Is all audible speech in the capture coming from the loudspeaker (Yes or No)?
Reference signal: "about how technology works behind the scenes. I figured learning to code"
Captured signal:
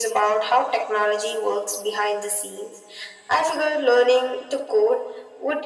Yes